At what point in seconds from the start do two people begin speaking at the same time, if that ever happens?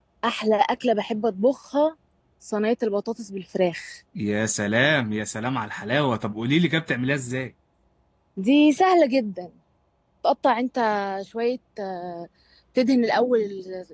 none

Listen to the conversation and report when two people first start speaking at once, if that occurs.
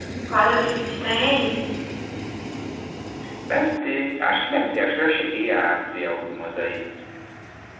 none

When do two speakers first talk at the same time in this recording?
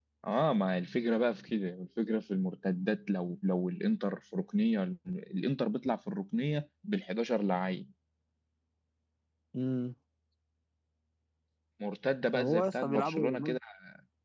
12.3 s

